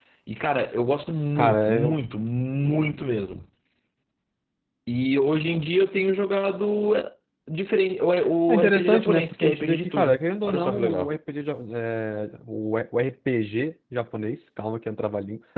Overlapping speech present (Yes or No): Yes